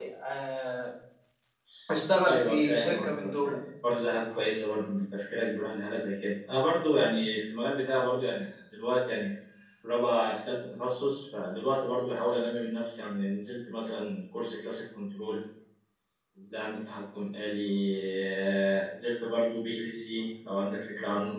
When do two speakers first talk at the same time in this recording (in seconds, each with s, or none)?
2.3 s